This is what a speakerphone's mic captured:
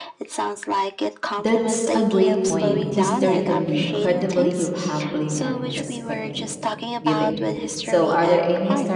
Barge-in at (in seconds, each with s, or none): 1.4 s